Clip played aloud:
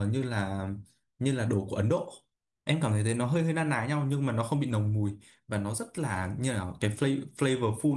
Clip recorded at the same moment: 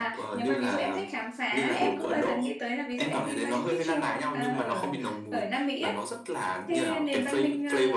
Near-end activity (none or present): present